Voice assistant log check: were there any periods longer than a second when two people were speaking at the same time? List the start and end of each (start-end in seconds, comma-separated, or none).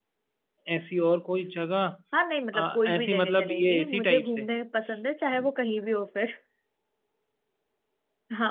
2.5-4.5